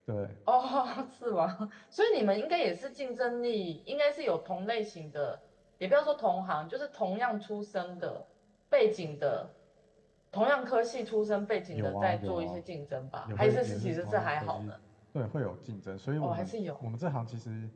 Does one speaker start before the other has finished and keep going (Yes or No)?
Yes